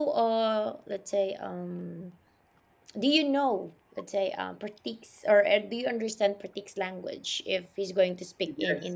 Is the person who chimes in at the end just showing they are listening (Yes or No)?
No